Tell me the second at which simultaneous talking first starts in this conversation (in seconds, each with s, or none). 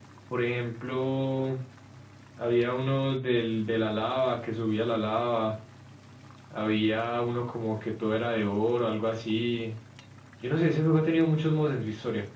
none